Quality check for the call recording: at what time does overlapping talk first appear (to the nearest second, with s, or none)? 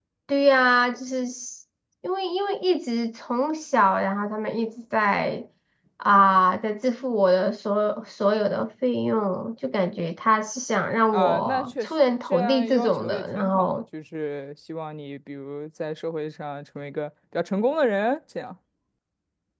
11 s